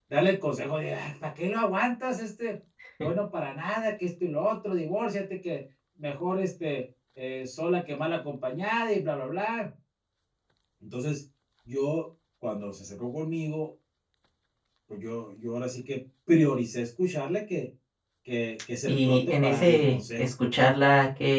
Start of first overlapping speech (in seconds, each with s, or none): 18.9 s